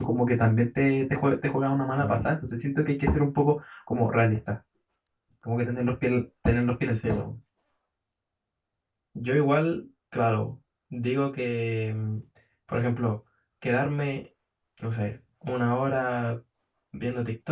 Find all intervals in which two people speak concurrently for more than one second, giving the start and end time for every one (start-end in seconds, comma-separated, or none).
none